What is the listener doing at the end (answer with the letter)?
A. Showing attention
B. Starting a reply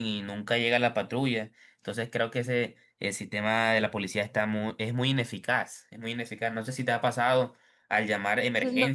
B